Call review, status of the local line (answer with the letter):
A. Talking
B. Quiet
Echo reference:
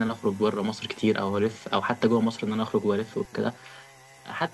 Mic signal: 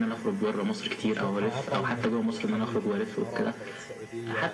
A